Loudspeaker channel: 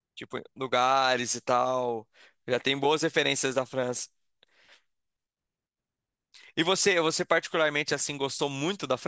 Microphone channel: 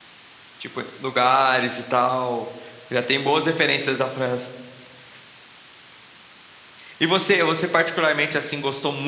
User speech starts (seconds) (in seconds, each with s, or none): none